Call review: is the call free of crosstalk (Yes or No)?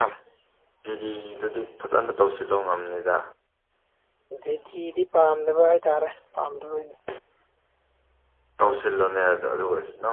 Yes